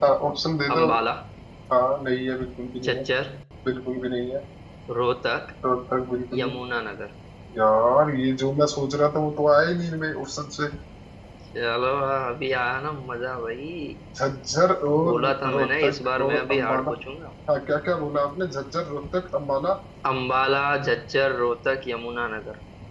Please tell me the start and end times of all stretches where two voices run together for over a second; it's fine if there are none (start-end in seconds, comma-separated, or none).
15.0-16.9